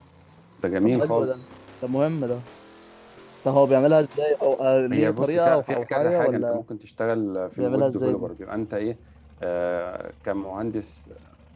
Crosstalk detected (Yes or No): Yes